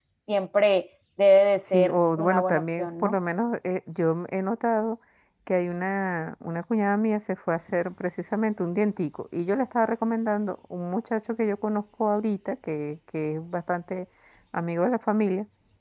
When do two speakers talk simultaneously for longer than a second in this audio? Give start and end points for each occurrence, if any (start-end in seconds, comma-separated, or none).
1.6-3.1